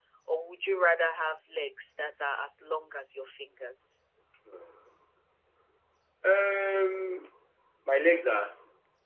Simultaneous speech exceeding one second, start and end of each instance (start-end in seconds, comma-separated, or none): none